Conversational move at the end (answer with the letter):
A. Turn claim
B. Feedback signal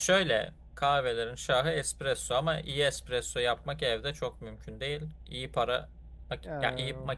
B